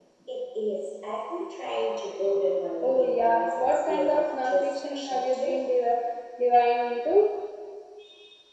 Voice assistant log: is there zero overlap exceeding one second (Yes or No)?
No